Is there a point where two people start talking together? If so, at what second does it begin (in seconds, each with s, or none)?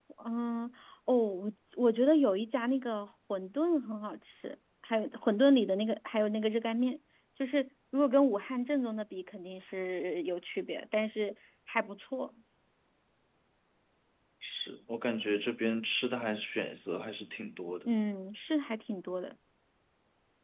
none